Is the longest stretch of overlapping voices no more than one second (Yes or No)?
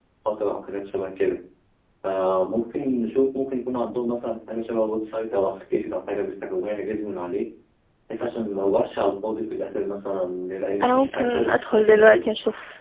No